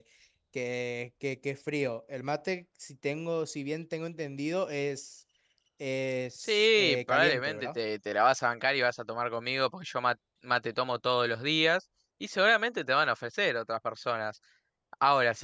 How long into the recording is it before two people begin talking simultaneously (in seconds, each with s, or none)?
6.4 s